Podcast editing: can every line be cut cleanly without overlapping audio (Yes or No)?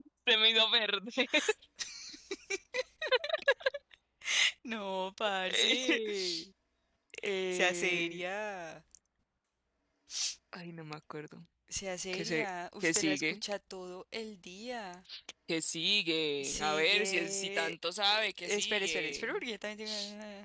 No